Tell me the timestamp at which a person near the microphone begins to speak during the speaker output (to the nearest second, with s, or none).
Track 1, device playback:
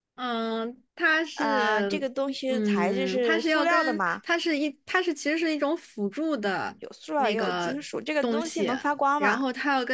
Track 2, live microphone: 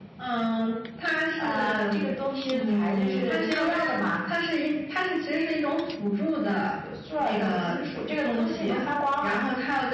none